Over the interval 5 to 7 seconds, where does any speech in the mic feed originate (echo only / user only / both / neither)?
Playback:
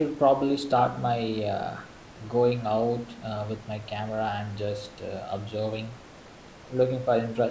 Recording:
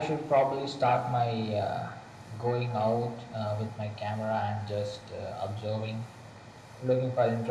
echo only